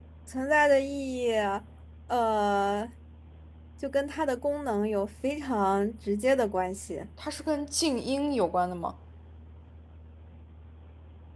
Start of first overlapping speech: none

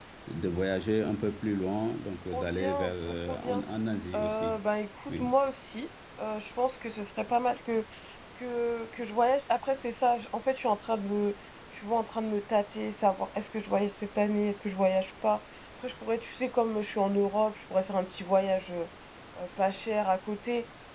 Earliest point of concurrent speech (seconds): 2.3 s

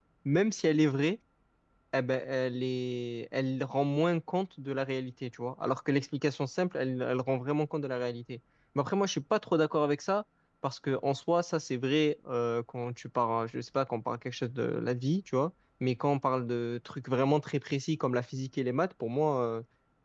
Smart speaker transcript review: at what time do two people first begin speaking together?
none

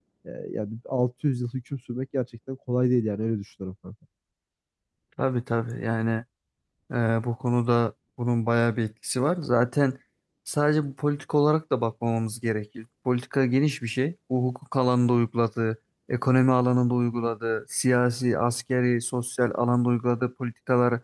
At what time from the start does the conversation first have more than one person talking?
none

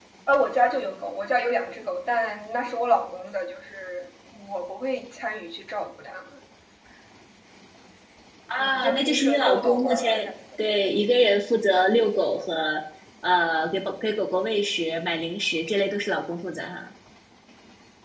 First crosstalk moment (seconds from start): 8.6 s

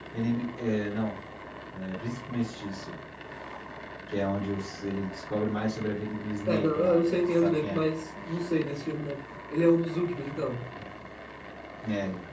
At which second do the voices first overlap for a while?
6.5 s

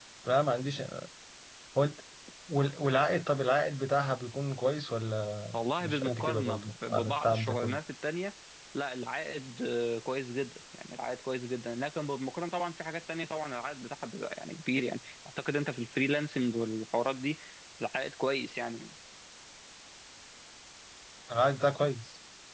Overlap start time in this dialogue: 5.5 s

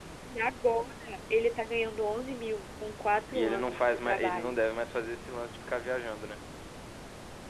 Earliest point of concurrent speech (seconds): 3.3 s

